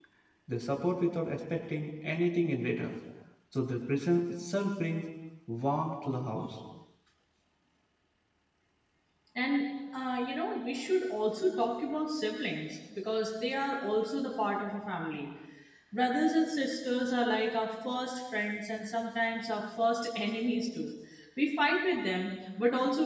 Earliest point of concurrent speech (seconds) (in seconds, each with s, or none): none